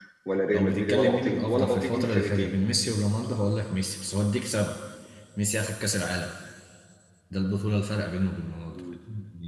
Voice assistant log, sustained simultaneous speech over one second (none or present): present